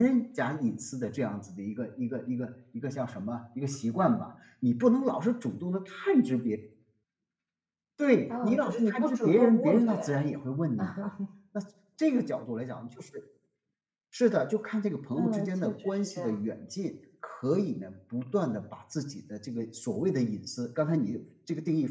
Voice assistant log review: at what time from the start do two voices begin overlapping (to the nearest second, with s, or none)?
8 s